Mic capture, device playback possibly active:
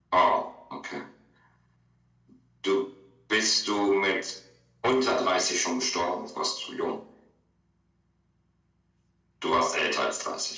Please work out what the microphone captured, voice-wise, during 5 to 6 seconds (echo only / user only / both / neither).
echo only